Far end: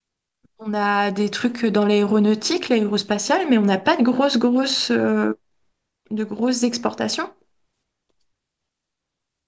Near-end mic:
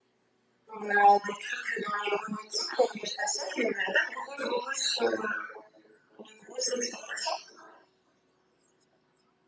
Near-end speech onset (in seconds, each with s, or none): none